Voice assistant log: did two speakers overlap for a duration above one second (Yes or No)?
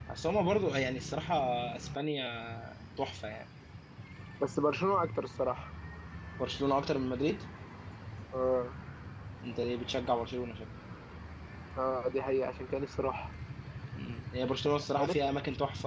No